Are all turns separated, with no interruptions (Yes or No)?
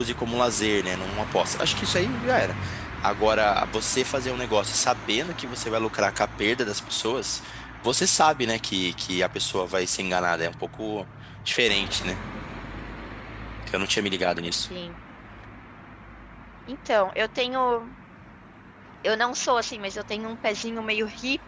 Yes